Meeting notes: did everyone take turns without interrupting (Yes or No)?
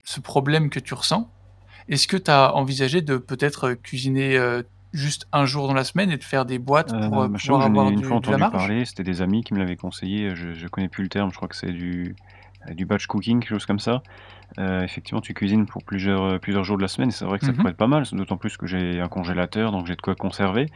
No